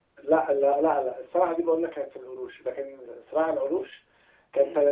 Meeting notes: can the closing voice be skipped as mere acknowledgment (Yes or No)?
No